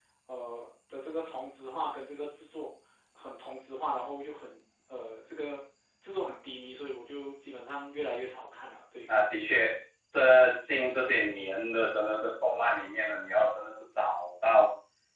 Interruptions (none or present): none